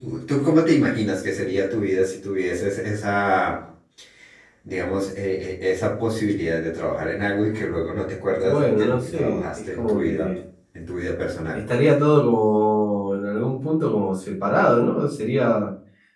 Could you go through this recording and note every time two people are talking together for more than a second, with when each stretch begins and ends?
8.4-10.4

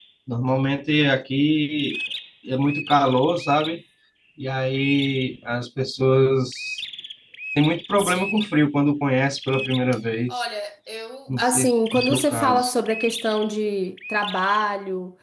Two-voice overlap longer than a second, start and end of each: 11.4-12.7

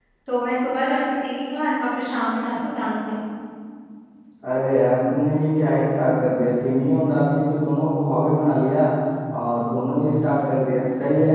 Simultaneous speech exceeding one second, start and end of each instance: none

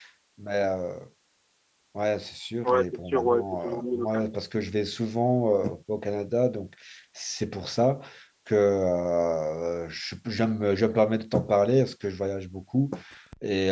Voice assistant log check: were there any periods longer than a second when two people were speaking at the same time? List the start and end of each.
2.6-4.2

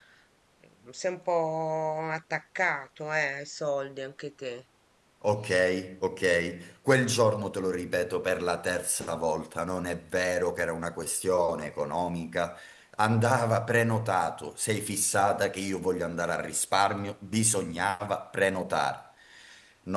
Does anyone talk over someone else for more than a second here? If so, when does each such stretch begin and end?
none

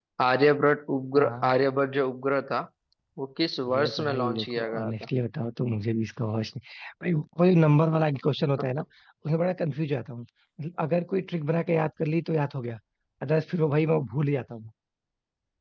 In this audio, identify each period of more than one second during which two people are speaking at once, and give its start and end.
3.7-4.9

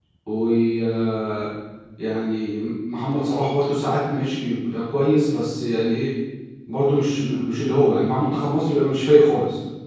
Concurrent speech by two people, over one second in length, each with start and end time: none

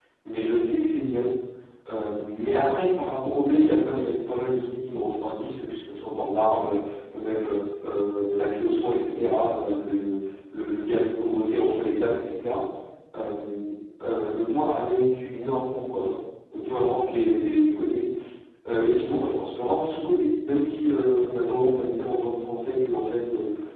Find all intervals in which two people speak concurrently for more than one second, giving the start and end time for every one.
none

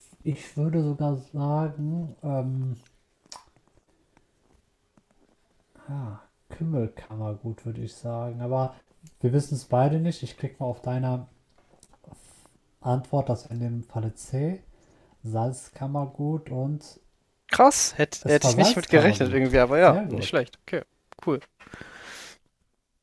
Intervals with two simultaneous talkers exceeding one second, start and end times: 18.3-20.3

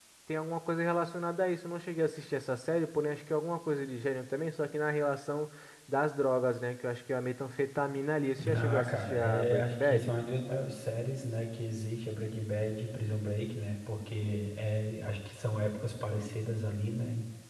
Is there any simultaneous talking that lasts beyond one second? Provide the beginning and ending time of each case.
8.5-10.2

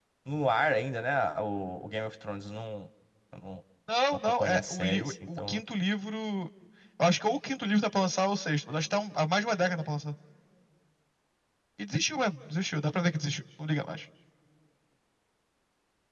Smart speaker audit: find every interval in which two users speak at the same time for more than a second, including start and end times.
4.4-5.6

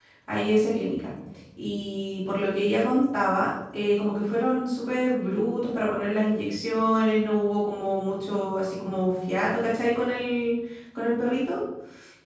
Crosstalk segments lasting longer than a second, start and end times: none

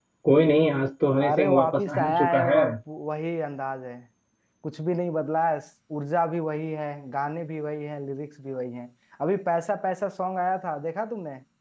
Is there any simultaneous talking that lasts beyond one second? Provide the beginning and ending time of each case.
1.3-2.6

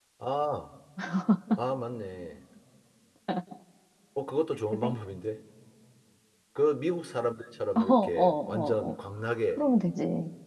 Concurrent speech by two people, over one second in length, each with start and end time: 7.8-8.9

